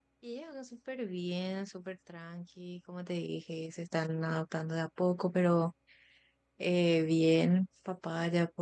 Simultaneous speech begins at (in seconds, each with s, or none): none